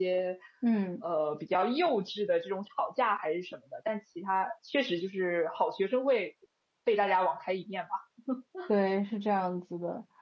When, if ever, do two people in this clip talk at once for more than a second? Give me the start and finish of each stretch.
none

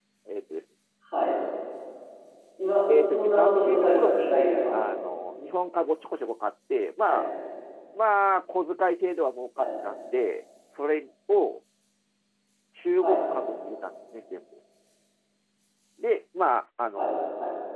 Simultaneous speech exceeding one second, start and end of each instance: 2.9-4.8

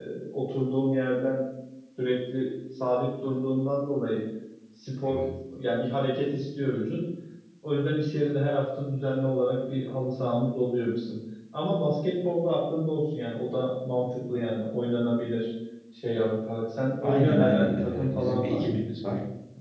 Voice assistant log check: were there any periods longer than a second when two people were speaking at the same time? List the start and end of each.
17.0-18.7

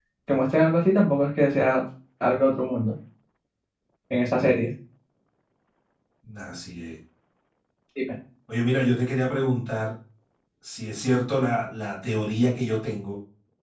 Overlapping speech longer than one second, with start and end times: none

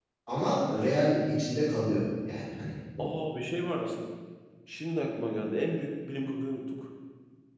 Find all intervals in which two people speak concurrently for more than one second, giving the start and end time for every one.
none

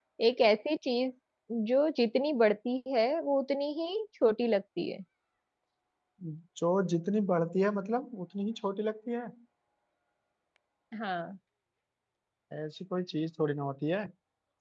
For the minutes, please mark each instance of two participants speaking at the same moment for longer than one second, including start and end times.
none

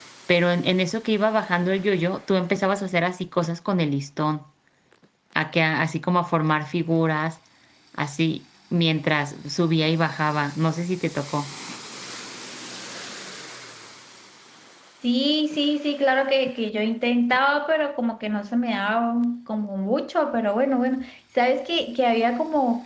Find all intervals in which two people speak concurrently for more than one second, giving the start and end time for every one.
none

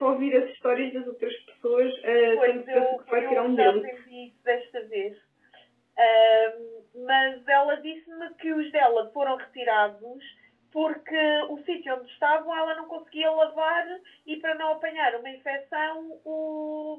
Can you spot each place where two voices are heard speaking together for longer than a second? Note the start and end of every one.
2.4-3.9

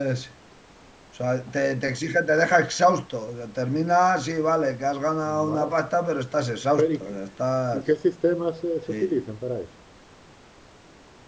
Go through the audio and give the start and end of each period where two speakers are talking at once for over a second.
none

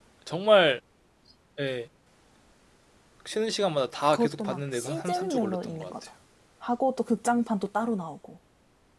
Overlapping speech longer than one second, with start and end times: 4.1-5.9

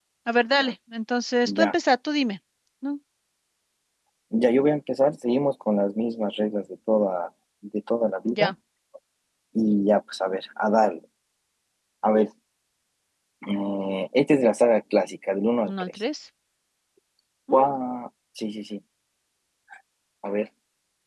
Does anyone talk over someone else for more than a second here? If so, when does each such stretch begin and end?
none

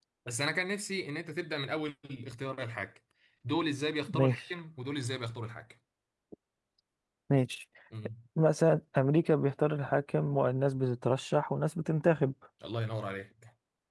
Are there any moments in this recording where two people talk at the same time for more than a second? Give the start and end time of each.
none

